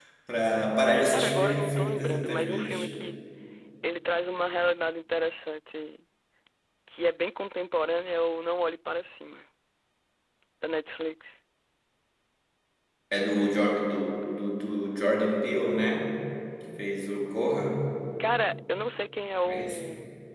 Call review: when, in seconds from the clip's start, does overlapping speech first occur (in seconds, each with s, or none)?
1.1 s